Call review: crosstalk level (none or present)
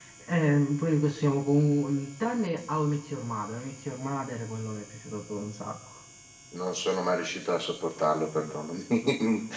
none